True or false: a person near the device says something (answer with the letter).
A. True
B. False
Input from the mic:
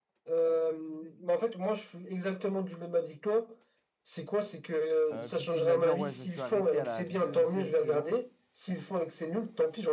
A